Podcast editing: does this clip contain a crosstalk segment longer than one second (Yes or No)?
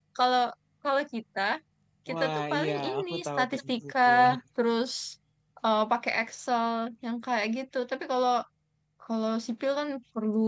Yes